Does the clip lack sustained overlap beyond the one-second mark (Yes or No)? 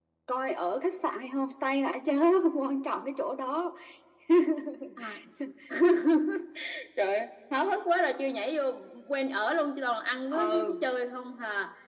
Yes